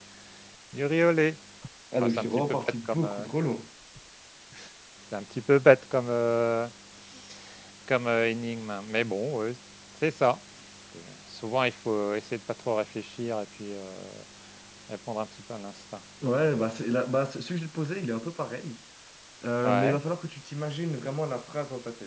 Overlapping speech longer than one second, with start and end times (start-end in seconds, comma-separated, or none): 2.0-3.3